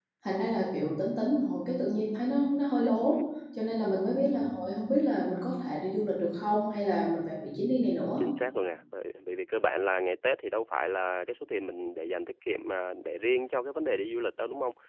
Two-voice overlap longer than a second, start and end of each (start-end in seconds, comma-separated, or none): none